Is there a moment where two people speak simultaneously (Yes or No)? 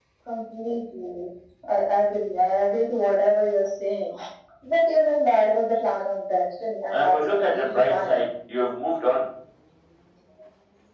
Yes